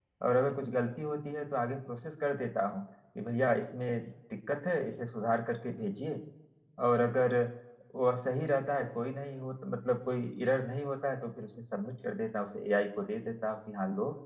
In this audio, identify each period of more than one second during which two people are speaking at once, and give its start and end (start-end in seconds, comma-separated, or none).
none